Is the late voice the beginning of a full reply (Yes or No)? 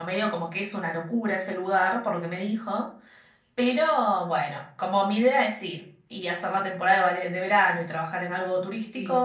No